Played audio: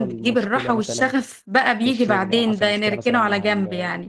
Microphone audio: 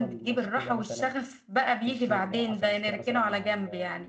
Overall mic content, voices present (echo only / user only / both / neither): echo only